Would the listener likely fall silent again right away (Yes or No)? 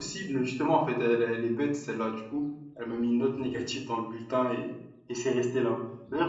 Yes